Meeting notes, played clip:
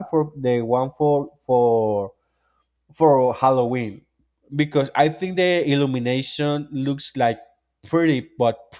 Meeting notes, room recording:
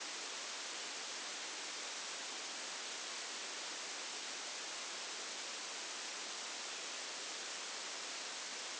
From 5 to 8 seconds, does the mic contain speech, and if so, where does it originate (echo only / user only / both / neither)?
neither